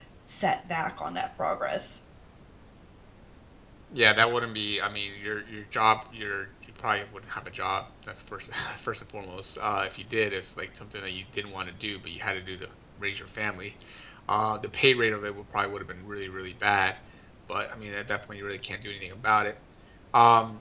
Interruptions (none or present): none